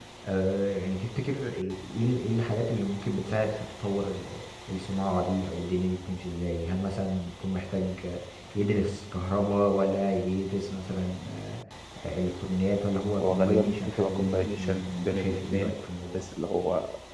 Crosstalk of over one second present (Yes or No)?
Yes